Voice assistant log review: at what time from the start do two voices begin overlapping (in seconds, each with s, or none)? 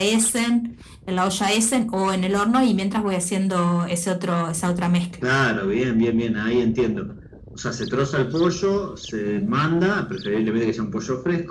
none